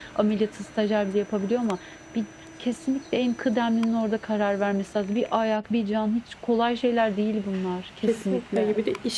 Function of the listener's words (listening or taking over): taking over